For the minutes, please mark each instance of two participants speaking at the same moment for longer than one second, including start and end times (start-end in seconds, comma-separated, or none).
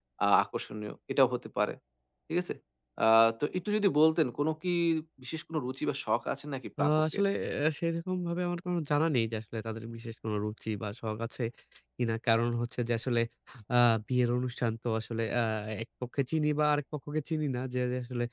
none